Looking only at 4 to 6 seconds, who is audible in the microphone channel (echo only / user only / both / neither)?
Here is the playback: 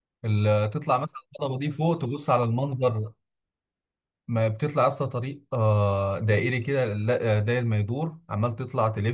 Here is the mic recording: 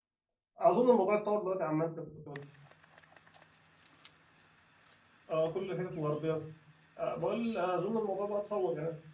user only